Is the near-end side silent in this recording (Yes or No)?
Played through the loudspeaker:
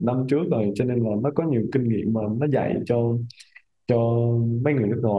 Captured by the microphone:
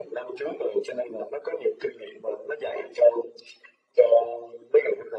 Yes